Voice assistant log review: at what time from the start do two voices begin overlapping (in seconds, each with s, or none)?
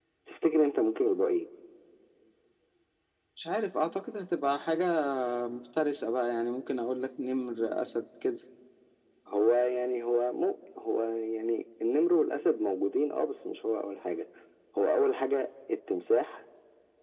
none